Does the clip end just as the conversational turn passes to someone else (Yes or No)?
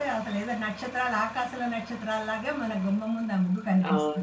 Yes